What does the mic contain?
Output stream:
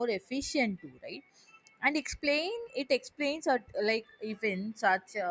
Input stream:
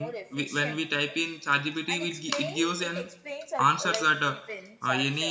both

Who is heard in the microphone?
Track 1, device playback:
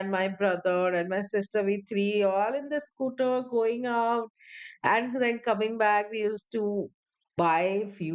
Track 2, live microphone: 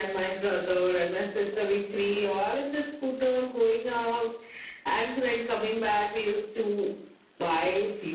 echo only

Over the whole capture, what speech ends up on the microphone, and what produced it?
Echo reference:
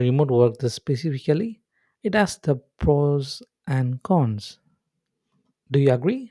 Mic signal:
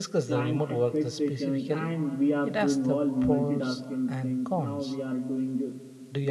both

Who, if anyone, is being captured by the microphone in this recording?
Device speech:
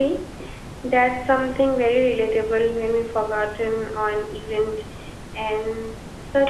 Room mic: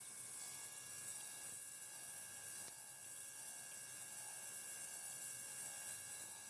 neither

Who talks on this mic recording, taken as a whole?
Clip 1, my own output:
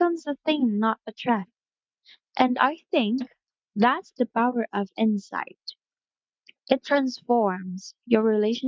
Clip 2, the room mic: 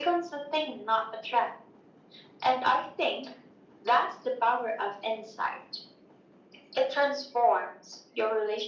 echo only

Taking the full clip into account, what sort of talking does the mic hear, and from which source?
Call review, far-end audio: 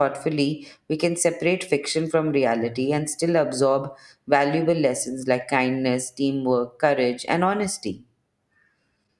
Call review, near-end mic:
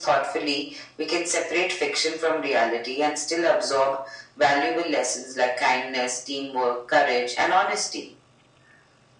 echo only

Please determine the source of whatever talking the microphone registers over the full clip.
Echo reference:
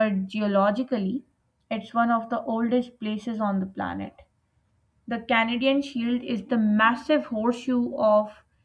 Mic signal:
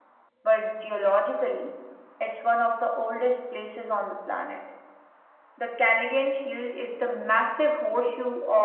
echo only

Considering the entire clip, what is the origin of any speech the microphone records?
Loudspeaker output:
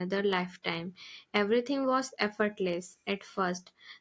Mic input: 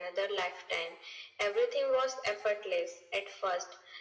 echo only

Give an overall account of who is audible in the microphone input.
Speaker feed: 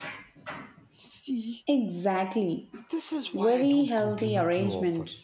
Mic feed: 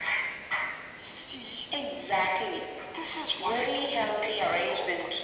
echo only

